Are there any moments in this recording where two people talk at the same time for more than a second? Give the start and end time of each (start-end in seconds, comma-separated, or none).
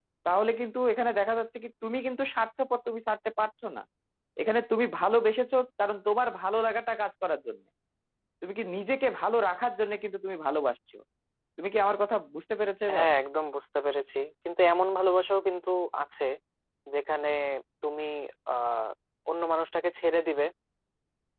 none